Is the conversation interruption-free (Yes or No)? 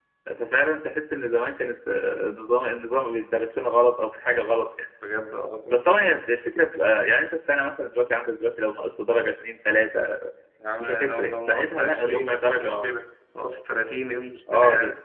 No